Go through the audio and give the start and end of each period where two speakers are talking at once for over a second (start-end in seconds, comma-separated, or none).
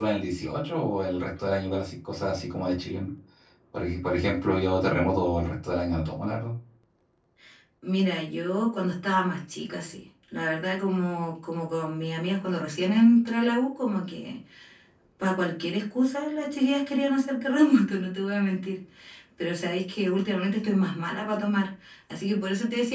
none